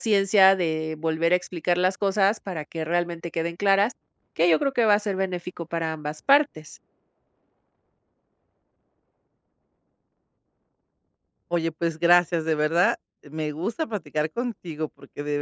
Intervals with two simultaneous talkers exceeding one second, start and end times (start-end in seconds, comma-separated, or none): none